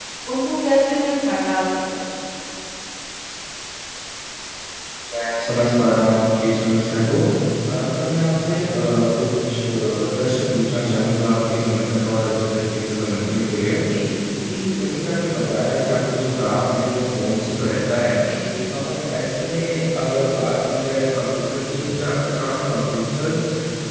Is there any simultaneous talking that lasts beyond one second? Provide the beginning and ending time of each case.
none

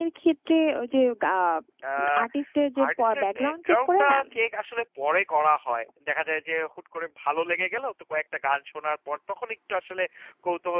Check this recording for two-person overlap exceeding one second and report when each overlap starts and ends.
2.9-4.2

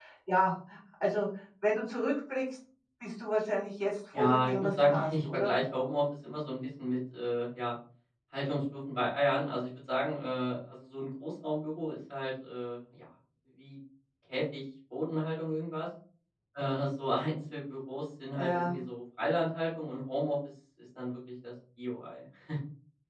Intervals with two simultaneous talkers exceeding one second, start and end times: 4.1-5.5

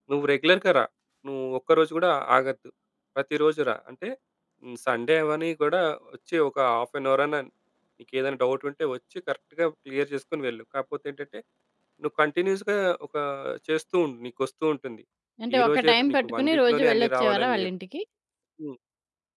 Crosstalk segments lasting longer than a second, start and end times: 15.6-17.7

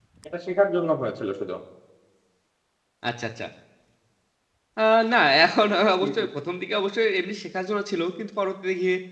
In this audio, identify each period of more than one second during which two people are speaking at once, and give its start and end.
none

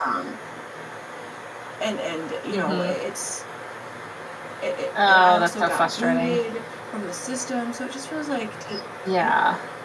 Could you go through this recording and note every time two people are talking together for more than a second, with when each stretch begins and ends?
5.1-6.4

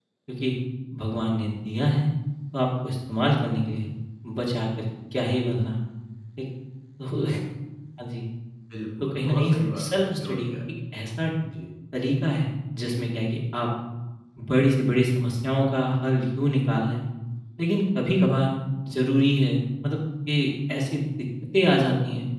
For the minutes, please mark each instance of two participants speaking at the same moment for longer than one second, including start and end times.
9.2-10.5

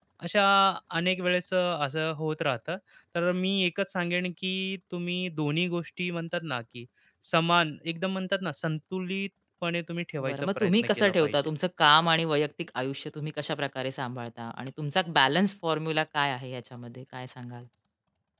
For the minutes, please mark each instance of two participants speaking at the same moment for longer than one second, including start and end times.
10.3-11.5

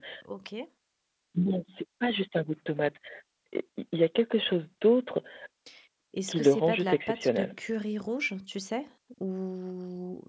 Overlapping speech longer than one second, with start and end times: 6.3-7.5

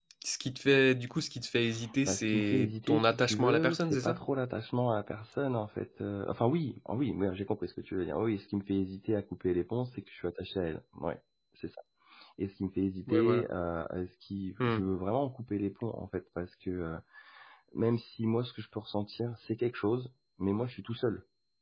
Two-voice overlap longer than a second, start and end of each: 2.1-4.2

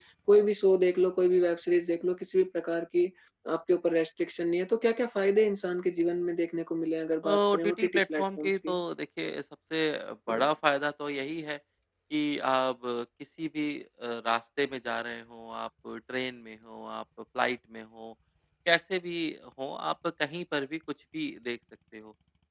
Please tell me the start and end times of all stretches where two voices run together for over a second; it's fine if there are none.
7.2-8.8

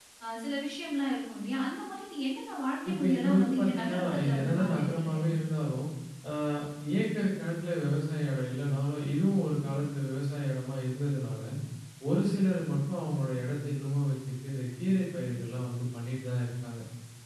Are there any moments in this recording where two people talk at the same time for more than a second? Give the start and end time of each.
2.9-5.2

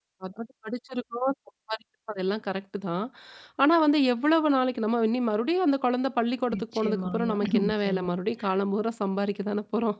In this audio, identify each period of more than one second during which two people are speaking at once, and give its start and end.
6.5-8.1

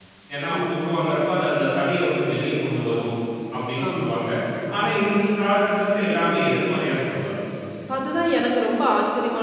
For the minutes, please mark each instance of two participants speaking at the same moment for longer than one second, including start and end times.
none

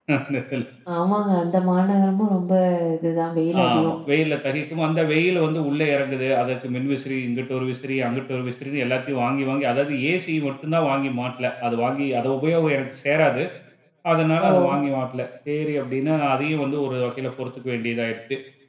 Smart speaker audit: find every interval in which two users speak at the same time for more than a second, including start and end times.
none

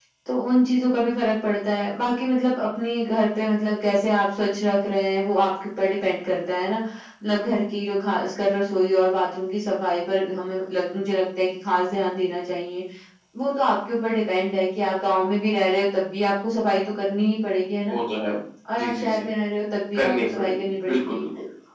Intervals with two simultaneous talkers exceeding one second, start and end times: 19.9-21.2

